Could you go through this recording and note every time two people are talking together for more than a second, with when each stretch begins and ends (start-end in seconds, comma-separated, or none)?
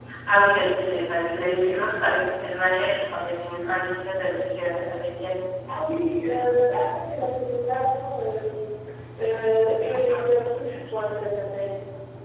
none